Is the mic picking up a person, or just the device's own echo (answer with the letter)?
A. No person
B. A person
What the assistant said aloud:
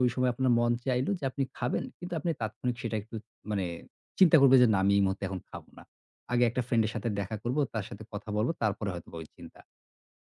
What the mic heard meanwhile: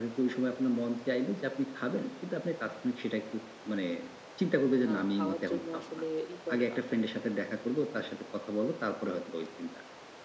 B